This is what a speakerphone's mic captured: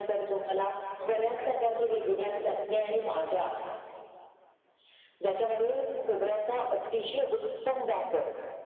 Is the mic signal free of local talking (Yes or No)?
No